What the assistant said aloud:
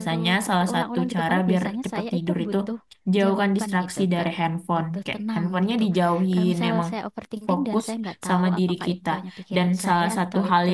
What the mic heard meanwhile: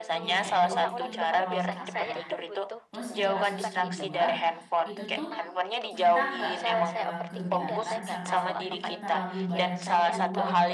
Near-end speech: present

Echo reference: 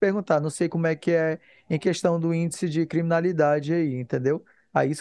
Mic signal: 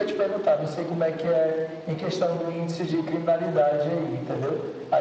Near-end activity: none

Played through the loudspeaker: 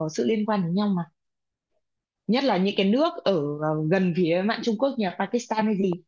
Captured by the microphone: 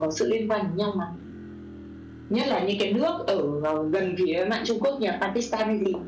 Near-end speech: none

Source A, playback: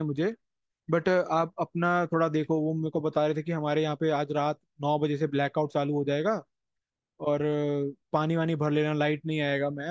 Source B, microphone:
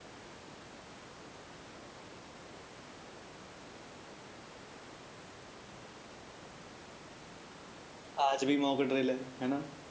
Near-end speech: present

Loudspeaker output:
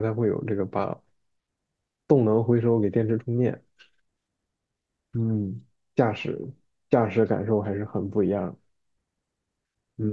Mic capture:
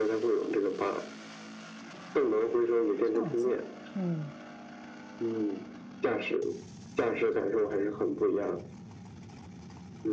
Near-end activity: present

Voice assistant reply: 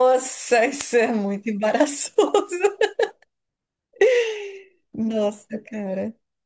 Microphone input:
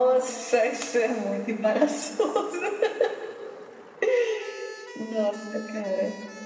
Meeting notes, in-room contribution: none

